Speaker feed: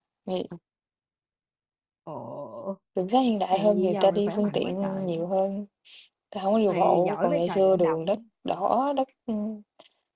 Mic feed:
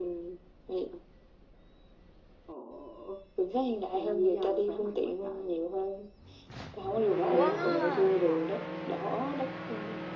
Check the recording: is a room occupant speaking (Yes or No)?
Yes